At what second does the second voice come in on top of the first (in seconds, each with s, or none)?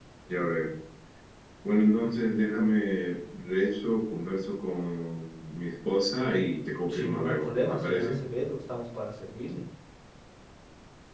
6.9 s